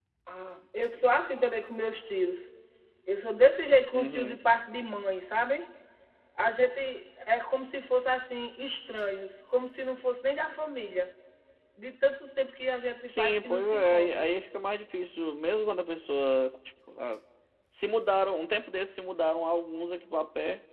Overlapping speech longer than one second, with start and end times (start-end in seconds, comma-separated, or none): 13.1-14.3